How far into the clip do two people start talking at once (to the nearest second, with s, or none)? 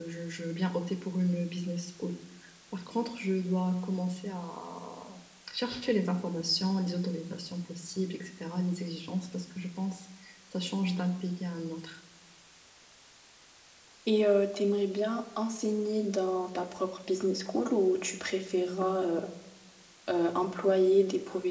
none